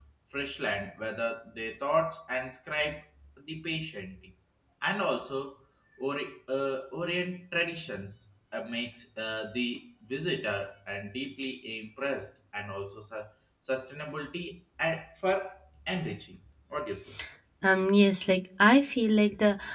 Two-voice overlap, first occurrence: none

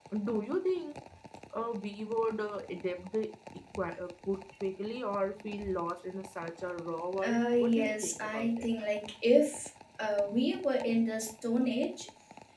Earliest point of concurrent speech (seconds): 7 s

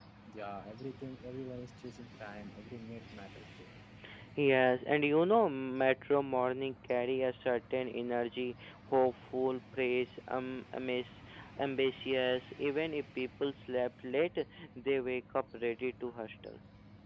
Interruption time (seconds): none

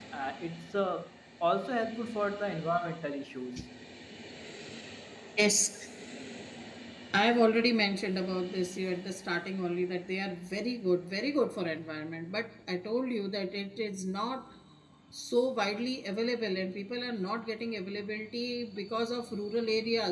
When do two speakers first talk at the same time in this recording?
none

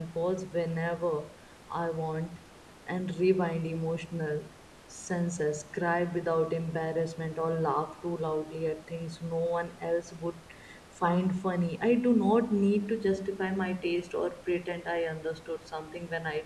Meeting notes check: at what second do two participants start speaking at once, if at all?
none

